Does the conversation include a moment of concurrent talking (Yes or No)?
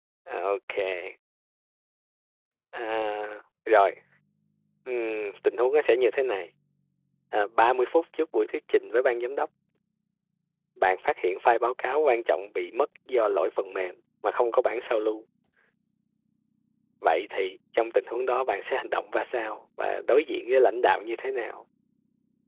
No